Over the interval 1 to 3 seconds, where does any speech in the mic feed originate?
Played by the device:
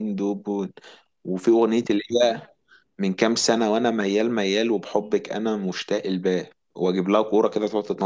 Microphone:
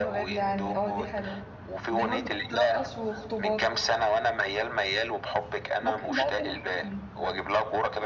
both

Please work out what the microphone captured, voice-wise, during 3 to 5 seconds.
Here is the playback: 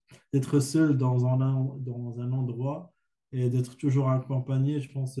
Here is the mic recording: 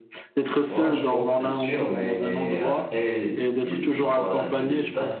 both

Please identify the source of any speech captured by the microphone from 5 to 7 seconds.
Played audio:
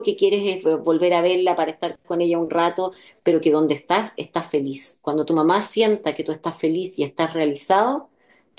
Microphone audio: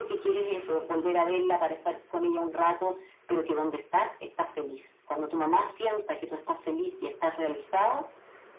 echo only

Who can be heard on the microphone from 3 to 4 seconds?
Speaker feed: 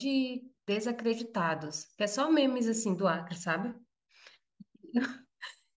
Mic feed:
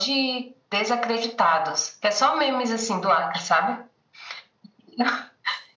echo only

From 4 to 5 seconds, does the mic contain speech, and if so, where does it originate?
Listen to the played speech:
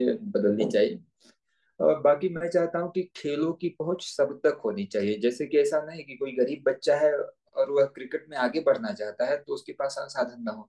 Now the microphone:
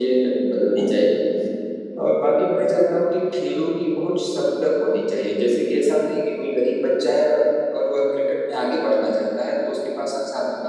echo only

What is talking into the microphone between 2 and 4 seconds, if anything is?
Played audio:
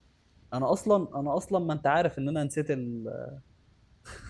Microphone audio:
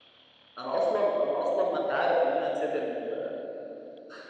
echo only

